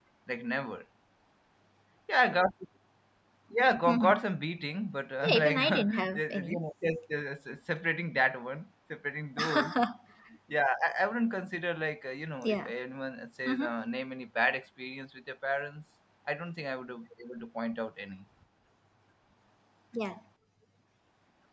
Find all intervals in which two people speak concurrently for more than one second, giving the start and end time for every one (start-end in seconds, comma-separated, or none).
5.2-6.6